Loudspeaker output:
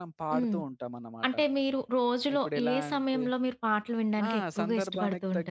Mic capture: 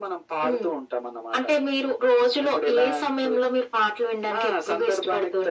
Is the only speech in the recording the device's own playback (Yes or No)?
Yes